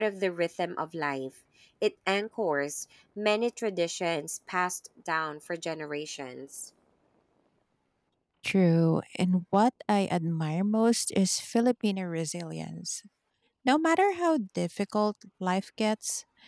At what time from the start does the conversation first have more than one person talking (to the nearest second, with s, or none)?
none